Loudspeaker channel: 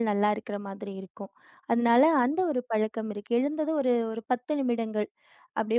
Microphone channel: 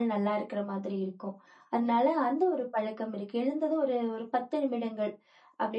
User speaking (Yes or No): No